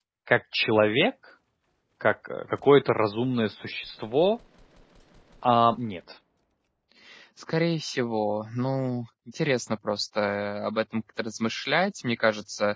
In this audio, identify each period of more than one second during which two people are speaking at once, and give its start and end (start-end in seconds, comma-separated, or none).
none